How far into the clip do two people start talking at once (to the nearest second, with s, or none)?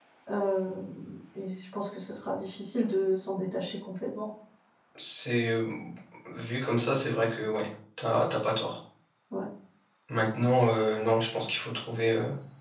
none